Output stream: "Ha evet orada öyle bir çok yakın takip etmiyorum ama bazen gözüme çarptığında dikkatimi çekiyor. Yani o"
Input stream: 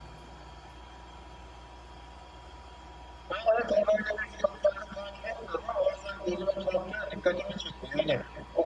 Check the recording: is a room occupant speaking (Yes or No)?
No